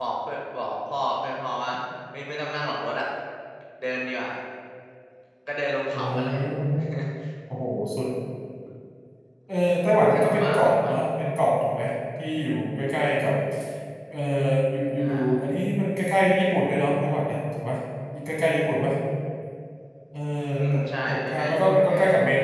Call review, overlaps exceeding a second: present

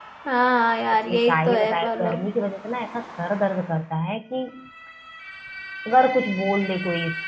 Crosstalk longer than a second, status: present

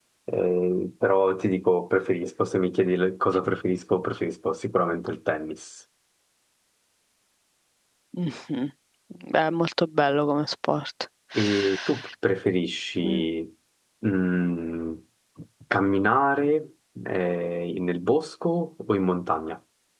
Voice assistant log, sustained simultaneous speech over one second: none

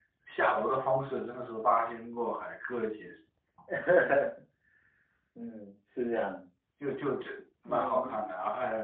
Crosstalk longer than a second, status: none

